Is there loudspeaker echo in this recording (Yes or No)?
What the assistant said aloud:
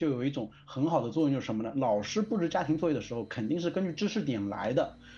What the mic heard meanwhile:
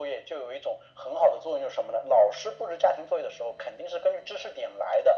Yes